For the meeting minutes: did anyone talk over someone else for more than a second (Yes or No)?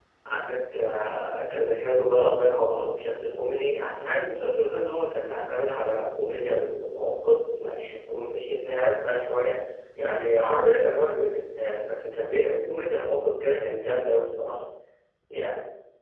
No